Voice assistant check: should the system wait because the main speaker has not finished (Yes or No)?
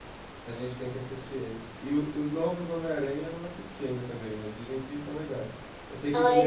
Yes